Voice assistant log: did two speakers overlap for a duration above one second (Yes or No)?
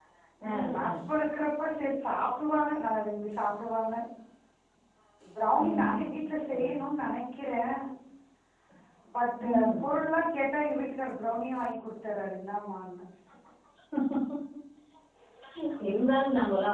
No